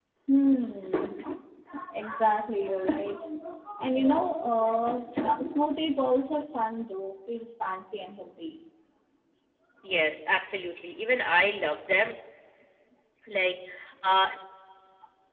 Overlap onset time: none

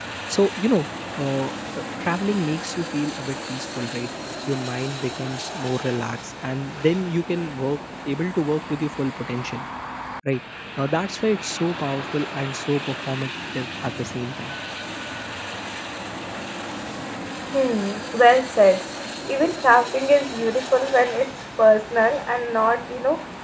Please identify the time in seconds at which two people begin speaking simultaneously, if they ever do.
none

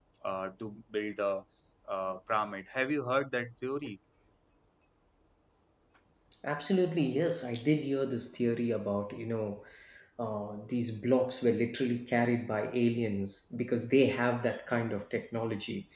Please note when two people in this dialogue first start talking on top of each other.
none

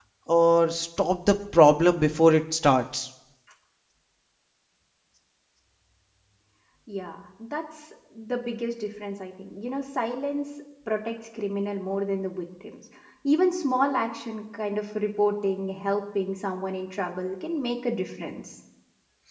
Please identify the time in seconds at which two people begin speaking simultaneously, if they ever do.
none

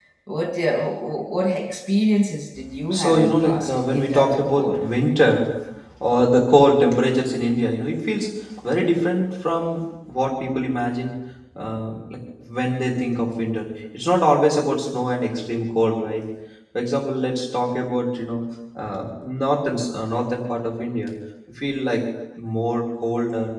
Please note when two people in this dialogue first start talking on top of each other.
2.9 s

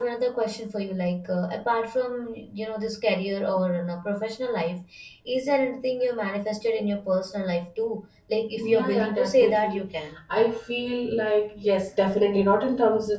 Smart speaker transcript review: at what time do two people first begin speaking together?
8.6 s

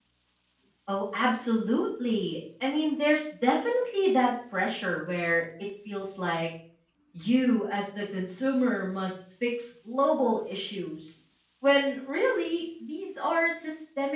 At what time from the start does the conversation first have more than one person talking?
none

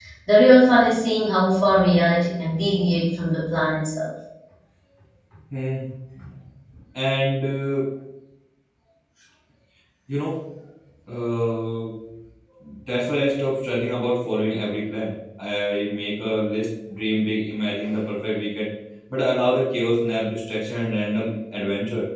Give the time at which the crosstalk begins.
none

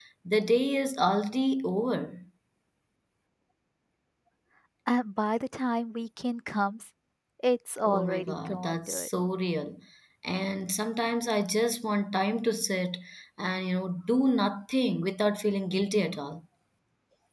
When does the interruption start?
7.8 s

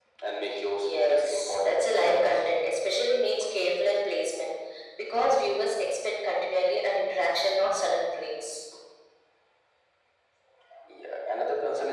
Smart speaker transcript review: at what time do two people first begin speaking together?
0.8 s

